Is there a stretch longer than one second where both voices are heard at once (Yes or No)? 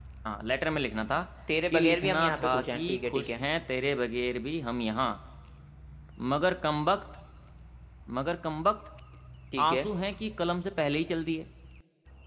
Yes